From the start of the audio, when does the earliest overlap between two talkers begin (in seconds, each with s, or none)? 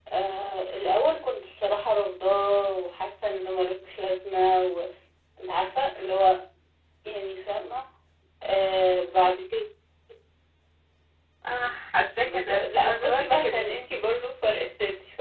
12.2 s